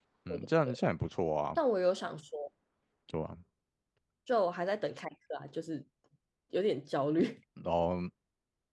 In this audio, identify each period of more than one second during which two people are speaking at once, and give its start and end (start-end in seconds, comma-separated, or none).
none